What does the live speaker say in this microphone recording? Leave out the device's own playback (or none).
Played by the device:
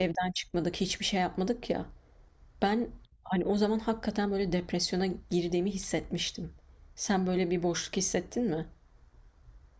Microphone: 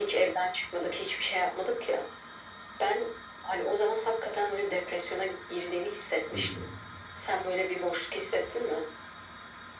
Hı hı.